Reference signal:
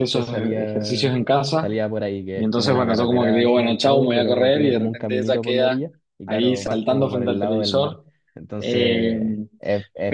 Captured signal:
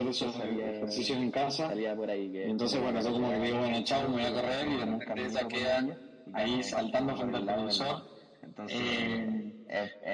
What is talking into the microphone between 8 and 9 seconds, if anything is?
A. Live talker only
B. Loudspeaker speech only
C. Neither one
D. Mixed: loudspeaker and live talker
B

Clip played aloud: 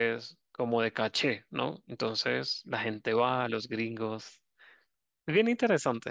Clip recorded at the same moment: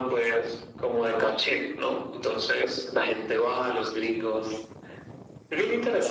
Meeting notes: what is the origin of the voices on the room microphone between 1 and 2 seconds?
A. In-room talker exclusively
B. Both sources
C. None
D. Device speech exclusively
D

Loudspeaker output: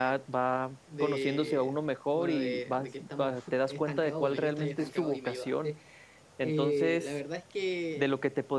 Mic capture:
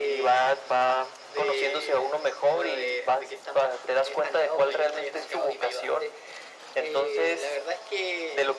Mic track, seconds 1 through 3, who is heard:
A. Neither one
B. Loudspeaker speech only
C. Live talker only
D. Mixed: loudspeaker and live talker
B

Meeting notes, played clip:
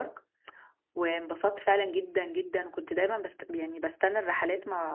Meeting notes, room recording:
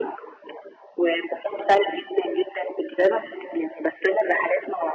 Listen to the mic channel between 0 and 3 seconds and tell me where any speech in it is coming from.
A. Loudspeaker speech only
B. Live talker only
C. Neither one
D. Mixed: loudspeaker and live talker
A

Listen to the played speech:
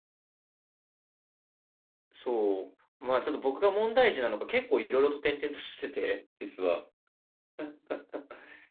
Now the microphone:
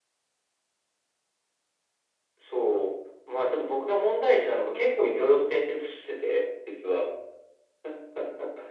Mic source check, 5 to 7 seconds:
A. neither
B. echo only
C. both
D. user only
B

